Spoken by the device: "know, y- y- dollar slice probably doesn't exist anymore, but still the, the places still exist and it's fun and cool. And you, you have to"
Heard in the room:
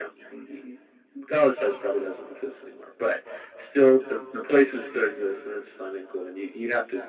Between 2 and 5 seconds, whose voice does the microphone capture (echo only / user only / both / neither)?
echo only